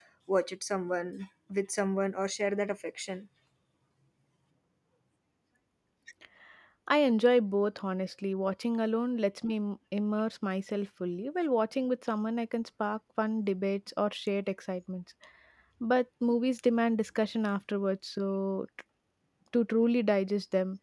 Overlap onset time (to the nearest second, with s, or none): none